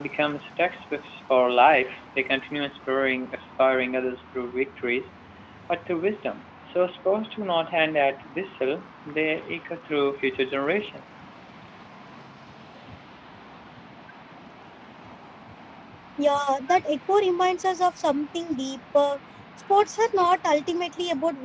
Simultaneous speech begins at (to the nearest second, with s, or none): none